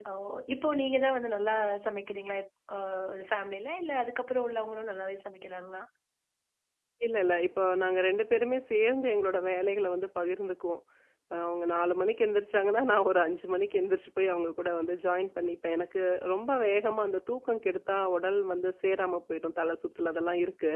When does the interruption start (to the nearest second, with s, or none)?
none